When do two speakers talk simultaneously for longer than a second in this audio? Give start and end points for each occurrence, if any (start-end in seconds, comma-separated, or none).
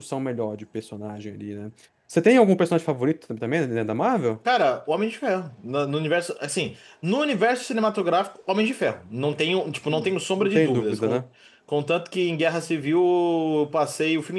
9.9-11.2